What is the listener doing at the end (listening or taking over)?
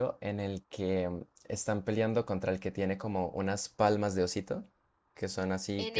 taking over